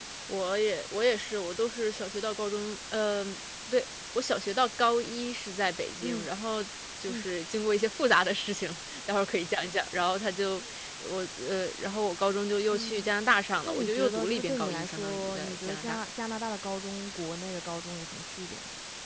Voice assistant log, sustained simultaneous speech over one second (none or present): present